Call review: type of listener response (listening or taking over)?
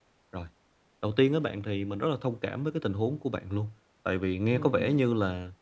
listening